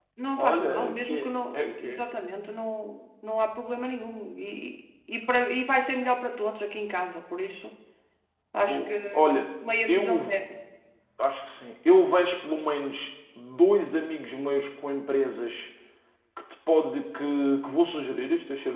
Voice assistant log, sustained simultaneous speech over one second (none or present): present